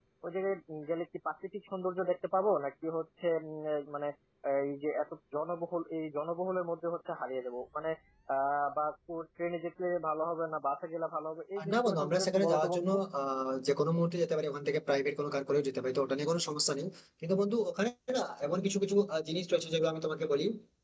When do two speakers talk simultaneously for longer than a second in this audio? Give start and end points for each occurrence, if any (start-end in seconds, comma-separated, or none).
11.6-12.9